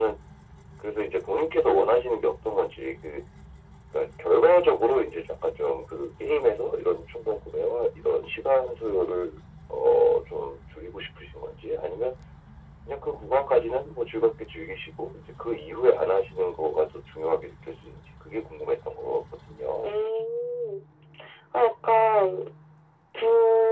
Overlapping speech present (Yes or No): No